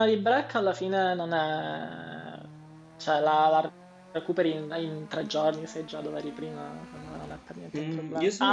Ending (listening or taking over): taking over